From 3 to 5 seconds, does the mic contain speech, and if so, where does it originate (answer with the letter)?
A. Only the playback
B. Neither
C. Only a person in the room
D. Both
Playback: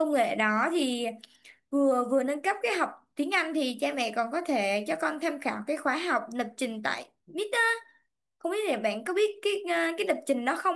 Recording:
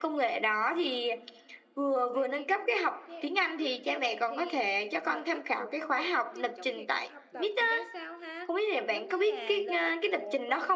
D